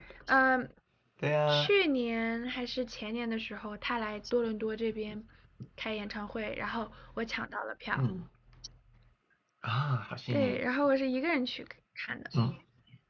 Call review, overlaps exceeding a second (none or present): none